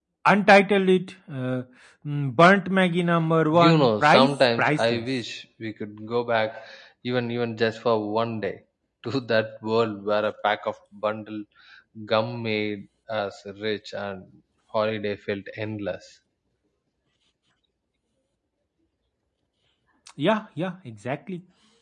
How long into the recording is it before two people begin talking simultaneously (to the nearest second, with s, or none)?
4 s